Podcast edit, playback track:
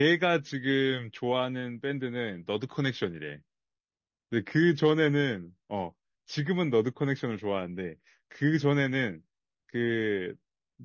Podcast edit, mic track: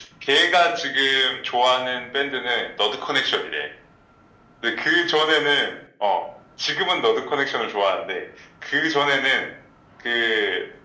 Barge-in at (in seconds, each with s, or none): none